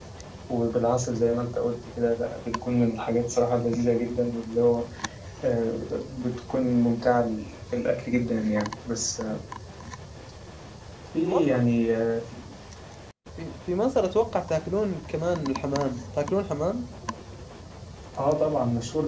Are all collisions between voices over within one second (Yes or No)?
Yes